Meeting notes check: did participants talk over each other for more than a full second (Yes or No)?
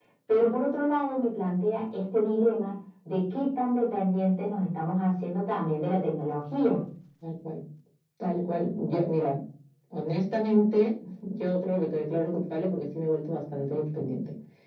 No